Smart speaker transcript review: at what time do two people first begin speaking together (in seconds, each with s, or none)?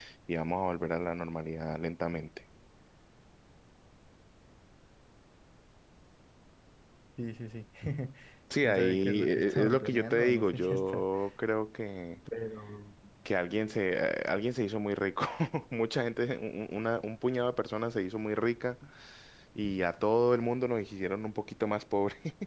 8.6 s